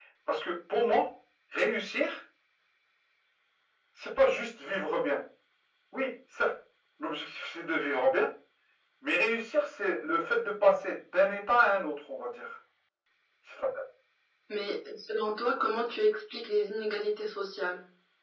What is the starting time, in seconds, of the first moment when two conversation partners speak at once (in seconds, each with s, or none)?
none